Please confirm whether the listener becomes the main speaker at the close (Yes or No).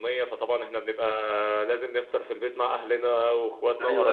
Yes